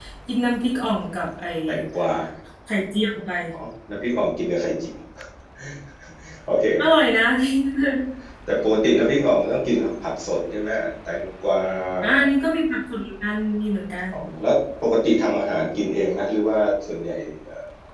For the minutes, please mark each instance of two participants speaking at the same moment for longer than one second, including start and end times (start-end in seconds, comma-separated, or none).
none